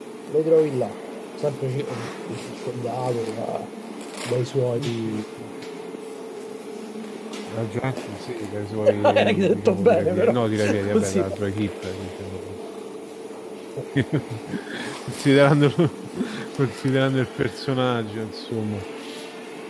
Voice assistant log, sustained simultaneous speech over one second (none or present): present